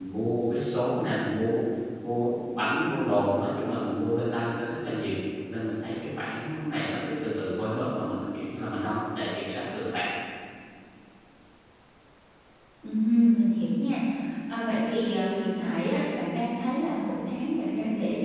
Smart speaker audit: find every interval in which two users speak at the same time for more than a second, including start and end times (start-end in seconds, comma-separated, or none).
none